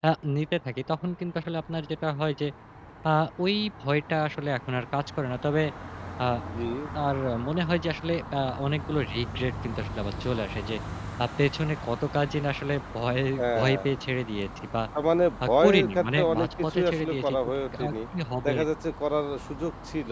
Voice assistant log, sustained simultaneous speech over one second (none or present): present